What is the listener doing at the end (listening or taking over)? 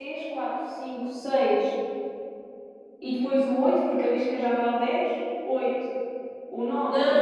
taking over